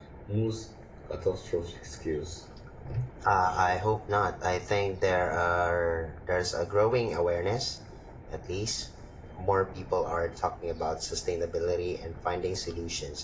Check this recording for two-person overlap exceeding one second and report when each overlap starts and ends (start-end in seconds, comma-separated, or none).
none